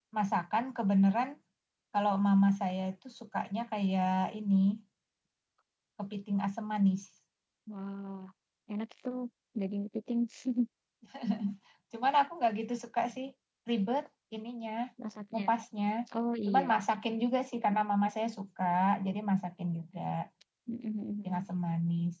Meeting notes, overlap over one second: none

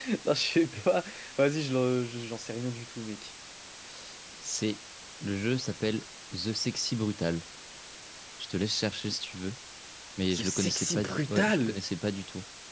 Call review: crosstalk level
present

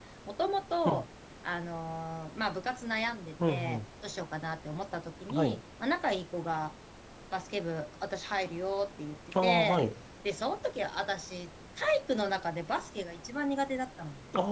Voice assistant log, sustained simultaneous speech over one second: none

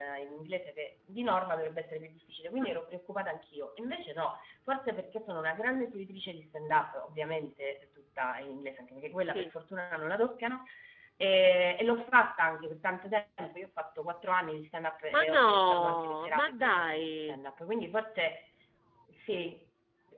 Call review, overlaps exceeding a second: present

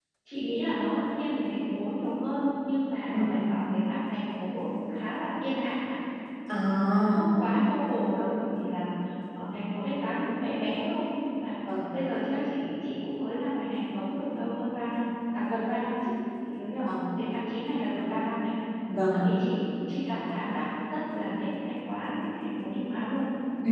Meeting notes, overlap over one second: none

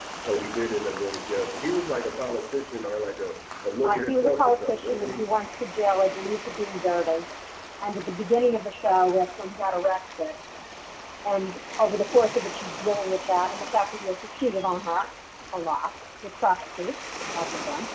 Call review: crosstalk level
present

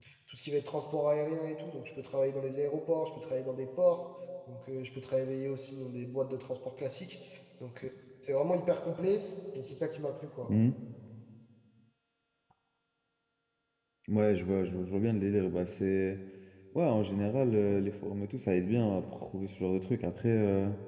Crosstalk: none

